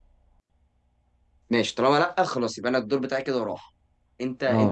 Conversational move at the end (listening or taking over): taking over